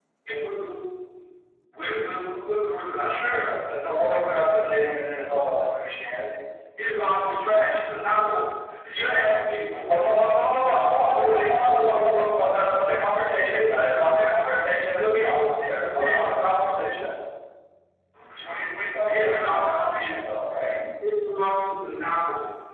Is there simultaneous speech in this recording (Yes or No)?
Yes